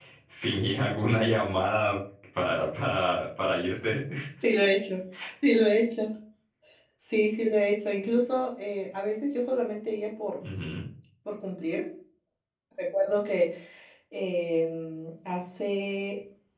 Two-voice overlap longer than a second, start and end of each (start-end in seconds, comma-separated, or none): none